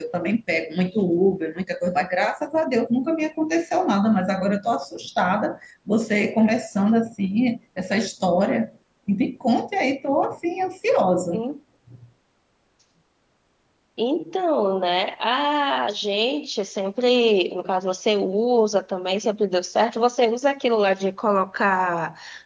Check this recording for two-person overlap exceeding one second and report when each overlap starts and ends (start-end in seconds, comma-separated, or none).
none